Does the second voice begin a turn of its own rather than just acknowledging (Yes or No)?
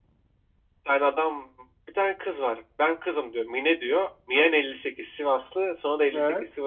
No